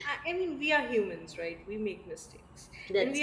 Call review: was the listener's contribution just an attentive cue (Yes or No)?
Yes